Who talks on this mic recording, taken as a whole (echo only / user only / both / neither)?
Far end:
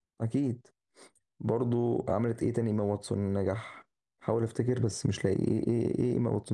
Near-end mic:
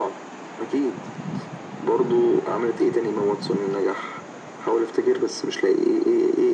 echo only